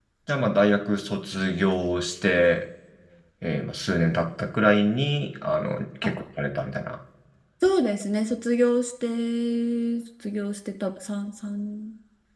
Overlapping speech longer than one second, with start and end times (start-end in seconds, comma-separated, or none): none